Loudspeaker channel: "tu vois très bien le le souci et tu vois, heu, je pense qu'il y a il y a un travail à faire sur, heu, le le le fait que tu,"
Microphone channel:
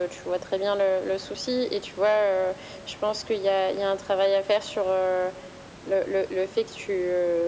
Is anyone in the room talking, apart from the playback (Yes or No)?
No